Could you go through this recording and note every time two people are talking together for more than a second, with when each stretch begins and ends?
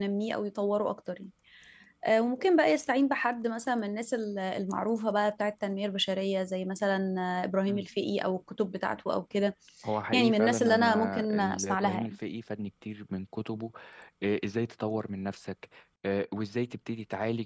10.1-12.1

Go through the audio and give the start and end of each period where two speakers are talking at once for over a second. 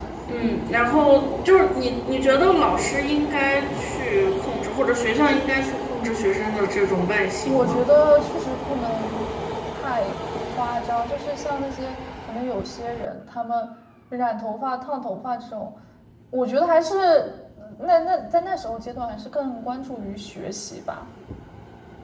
none

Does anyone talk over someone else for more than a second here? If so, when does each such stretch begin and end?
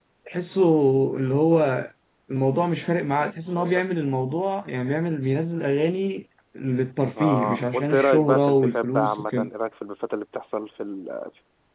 7.2-9.5

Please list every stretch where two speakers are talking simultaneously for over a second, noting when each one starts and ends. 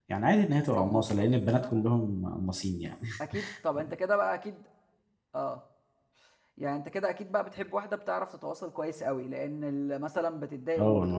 none

